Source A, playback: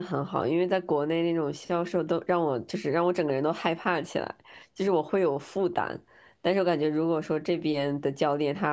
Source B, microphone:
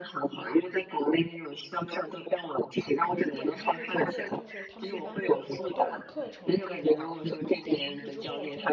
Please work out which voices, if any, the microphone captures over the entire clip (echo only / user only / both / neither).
both